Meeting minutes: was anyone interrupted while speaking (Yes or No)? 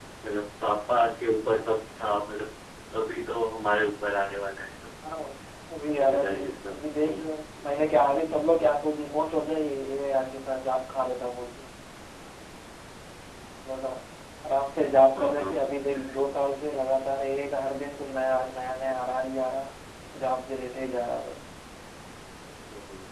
Yes